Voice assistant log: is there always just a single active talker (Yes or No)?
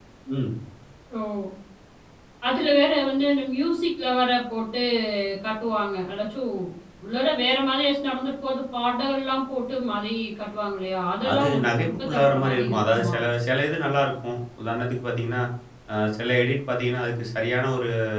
No